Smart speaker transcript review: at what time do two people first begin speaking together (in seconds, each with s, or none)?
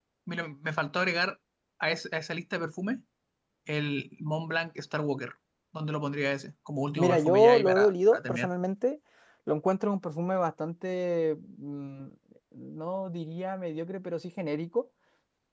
7.0 s